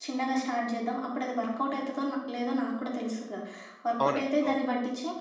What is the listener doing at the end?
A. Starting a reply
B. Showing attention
B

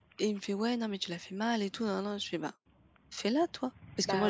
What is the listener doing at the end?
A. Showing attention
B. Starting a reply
A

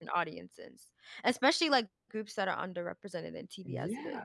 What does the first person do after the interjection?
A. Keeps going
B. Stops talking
B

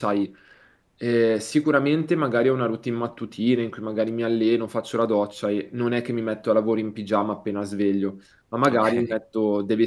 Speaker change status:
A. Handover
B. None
B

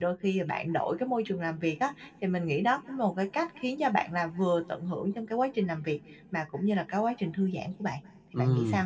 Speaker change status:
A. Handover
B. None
A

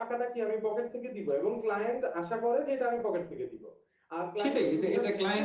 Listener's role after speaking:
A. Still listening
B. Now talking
B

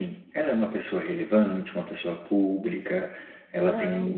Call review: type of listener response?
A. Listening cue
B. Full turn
A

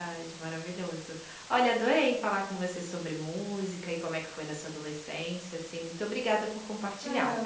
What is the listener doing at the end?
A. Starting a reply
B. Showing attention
A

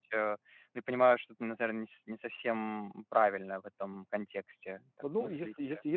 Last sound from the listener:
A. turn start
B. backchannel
A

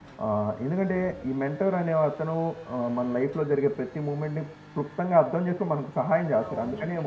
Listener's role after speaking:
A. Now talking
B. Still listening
A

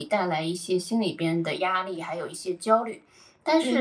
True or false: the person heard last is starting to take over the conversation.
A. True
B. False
B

